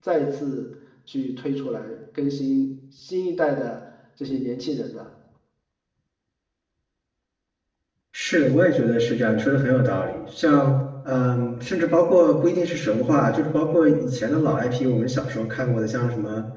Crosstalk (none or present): none